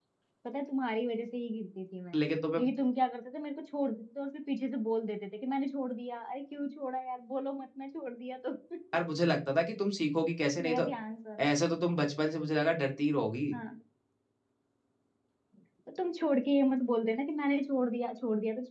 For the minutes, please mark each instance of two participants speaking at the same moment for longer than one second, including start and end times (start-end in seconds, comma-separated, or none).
none